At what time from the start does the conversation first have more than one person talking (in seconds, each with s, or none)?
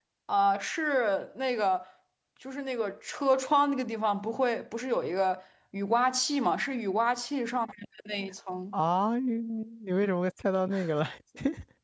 none